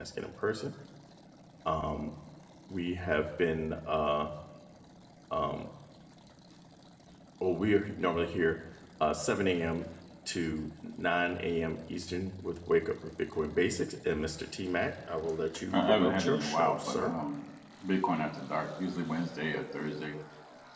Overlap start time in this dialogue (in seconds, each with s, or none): 15.7 s